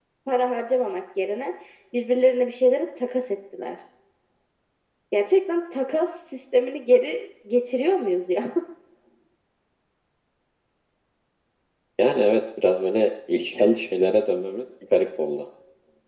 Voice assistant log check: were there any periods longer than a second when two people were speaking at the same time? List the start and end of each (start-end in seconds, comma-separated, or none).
none